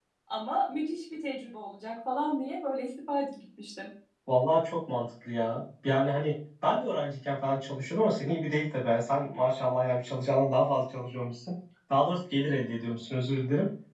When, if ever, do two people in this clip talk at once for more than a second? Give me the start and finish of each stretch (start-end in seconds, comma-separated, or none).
none